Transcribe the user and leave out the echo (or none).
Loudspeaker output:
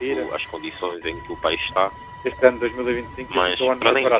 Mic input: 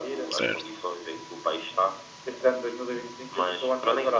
certo,